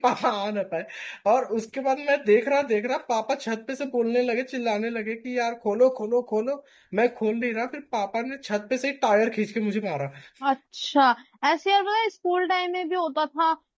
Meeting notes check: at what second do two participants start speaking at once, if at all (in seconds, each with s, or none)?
none